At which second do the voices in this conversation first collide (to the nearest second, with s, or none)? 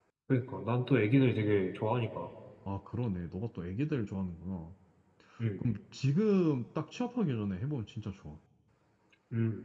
none